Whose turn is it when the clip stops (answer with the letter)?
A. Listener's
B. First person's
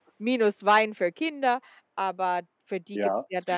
A